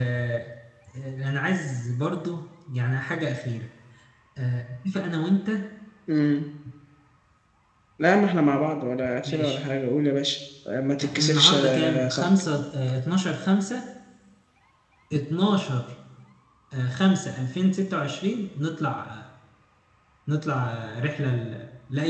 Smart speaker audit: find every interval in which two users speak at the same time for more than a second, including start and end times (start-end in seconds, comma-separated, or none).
11.0-12.3